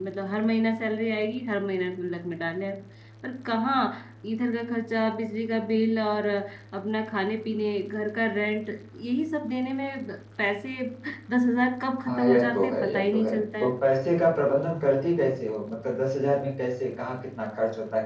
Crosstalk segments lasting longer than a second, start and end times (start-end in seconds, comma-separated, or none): 12.0-13.8